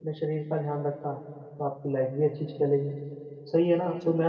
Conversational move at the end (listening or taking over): listening